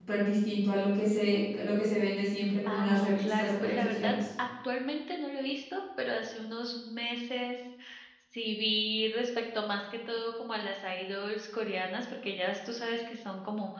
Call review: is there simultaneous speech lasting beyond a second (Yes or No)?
Yes